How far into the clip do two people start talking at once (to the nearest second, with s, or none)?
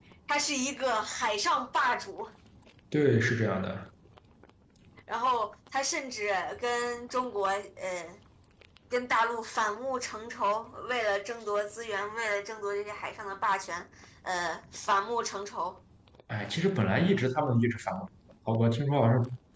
none